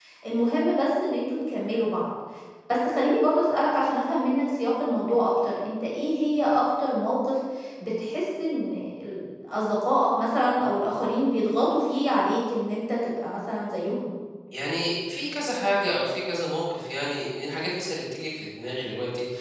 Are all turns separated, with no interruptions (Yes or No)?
Yes